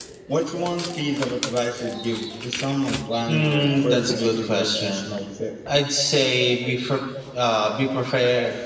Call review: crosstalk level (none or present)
present